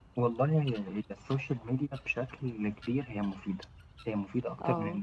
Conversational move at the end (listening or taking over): listening